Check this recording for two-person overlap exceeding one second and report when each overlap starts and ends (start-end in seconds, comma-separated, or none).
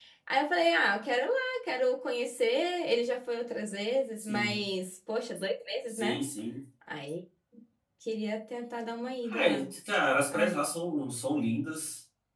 none